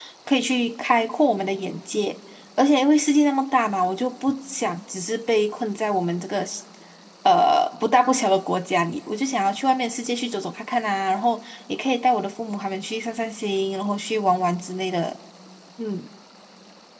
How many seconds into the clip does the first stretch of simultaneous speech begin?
none

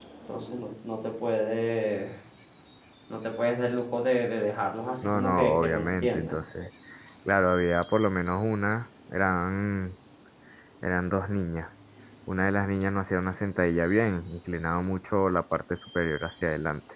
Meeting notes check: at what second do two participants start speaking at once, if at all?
5.0 s

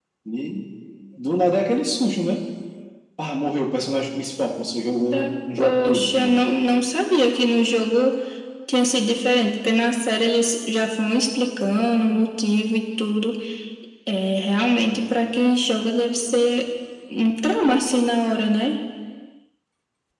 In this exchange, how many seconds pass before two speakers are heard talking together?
5.1 s

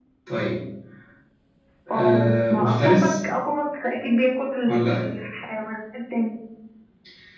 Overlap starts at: 1.9 s

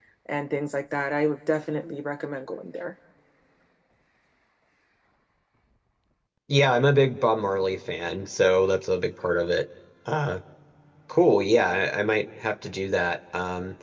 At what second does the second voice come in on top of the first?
none

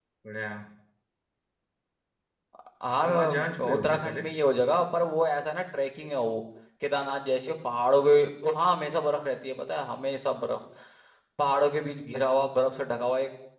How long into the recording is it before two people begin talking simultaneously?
2.9 s

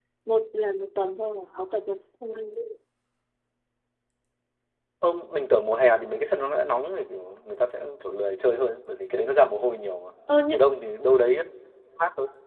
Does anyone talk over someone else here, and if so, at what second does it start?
none

